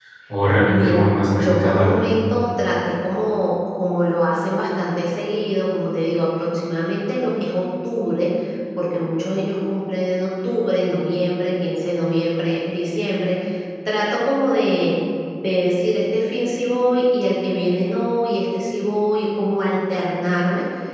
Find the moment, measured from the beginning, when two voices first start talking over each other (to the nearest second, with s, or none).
1 s